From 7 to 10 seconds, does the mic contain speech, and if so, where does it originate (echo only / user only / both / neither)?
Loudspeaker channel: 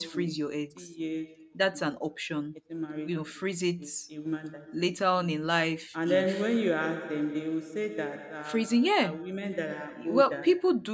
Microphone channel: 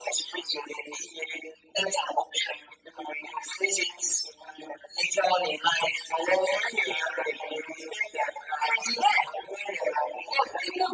echo only